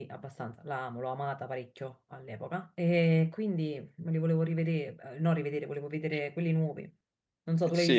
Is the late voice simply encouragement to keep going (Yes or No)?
No